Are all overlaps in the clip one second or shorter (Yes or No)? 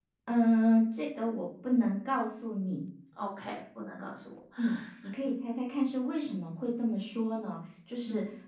Yes